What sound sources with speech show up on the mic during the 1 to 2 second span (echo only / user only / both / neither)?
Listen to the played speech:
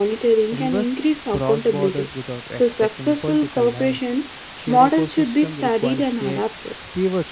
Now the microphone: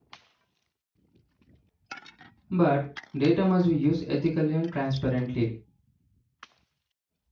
neither